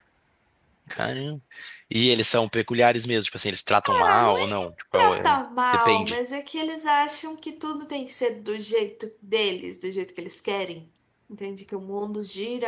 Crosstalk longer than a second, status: present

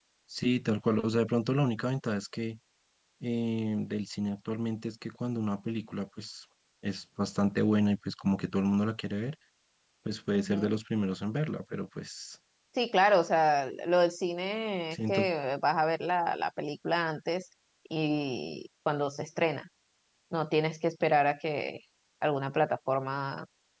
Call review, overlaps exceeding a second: none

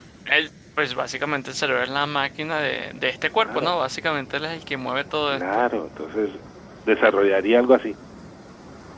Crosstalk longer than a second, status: none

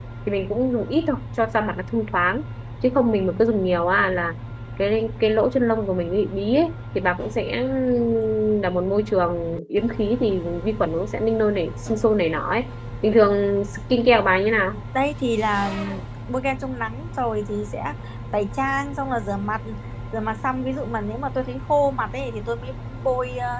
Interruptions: none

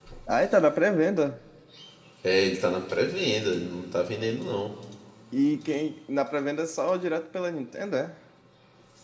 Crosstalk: none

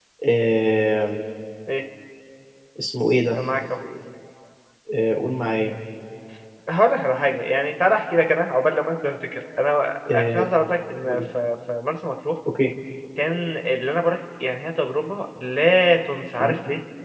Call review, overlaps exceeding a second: none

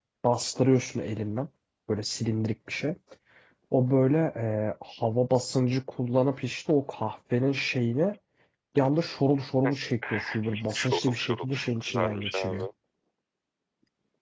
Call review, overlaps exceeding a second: present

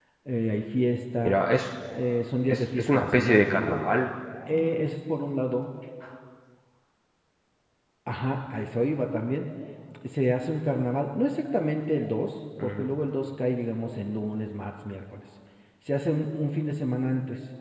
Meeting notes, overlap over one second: present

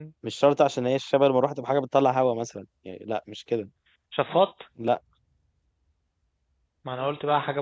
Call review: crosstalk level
none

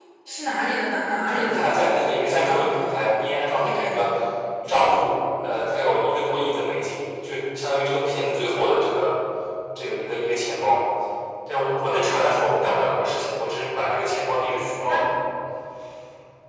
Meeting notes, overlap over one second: present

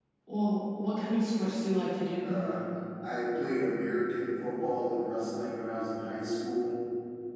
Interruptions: none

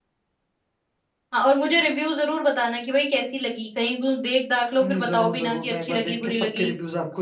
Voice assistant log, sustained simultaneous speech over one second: present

